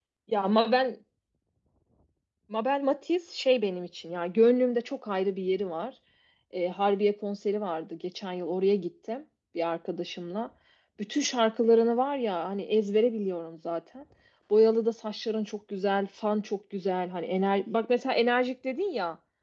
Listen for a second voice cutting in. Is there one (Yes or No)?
No